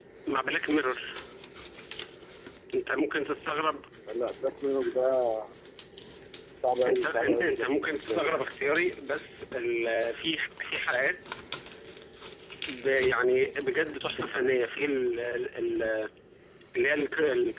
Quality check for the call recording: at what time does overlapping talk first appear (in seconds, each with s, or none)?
6.9 s